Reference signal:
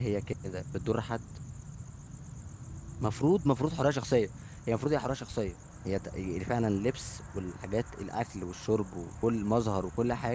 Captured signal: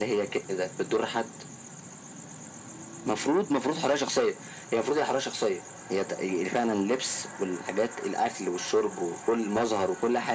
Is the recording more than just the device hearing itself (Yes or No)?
No